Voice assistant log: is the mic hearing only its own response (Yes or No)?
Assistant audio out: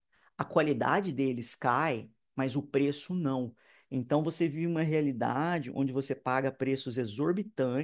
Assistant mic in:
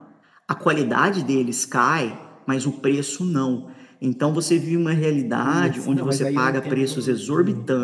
No